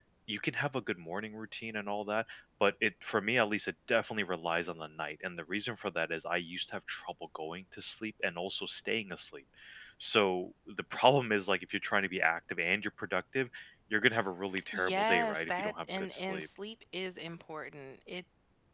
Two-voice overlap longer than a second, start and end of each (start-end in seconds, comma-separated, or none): 14.7-16.5